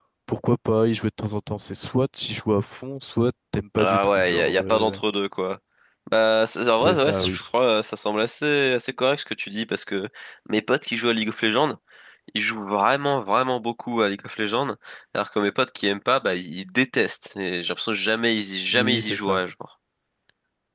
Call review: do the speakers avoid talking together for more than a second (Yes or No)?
No